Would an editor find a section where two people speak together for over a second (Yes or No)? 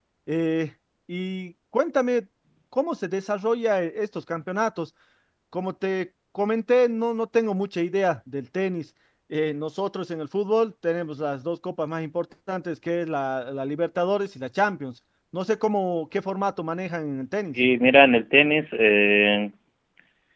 No